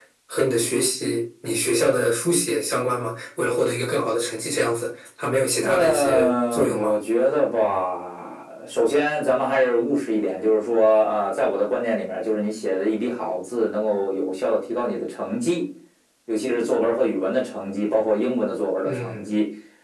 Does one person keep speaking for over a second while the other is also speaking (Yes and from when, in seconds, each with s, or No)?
Yes, from 5.6 s